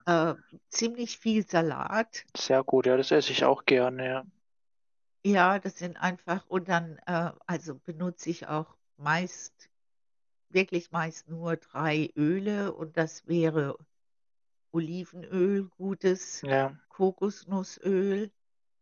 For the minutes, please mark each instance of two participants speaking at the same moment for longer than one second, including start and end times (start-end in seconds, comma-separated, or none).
none